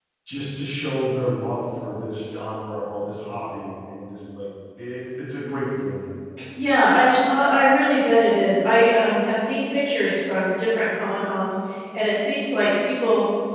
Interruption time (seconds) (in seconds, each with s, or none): none